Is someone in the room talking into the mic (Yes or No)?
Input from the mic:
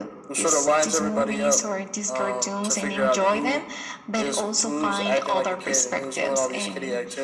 No